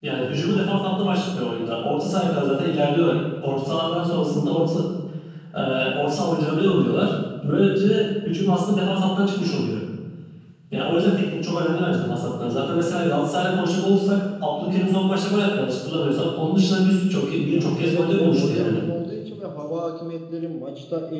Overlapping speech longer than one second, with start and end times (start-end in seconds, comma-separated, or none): 17.5-18.8